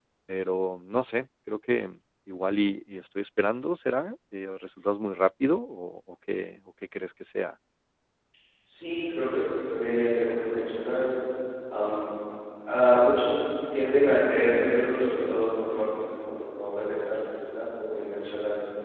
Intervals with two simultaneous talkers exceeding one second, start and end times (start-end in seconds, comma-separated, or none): none